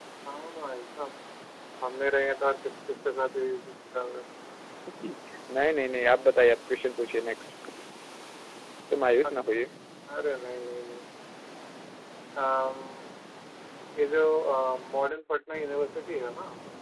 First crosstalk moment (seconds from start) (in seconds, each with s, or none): none